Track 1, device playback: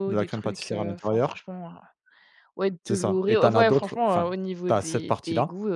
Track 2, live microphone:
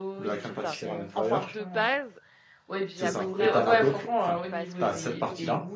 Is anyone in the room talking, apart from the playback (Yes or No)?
Yes